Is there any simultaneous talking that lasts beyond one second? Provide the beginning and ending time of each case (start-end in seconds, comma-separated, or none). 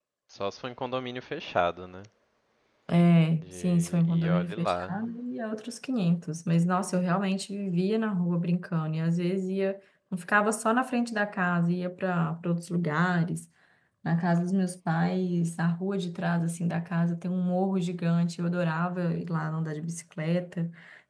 3.4-5.0